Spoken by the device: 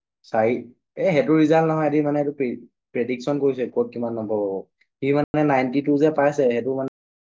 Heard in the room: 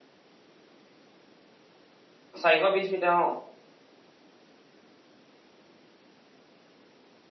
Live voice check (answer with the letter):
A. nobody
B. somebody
B